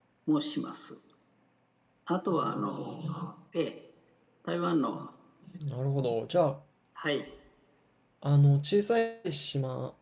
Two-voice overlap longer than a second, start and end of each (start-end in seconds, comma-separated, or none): none